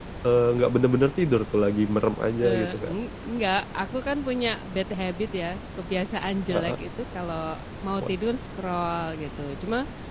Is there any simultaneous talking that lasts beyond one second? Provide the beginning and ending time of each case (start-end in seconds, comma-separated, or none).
none